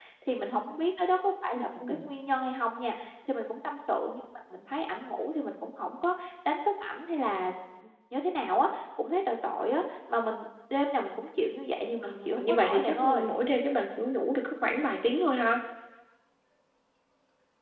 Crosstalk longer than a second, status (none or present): present